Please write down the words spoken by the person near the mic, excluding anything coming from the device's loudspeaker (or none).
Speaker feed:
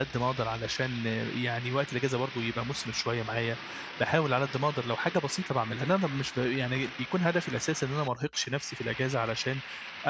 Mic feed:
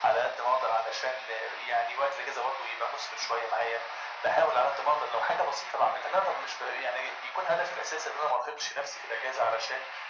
none